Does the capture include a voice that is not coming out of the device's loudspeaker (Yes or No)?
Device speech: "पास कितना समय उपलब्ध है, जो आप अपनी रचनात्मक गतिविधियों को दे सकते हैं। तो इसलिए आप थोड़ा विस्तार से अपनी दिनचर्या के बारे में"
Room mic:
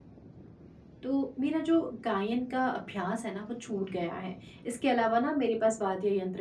Yes